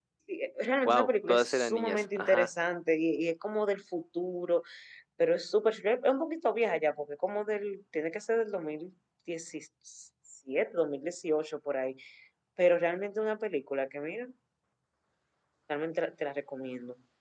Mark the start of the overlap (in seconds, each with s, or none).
0.8 s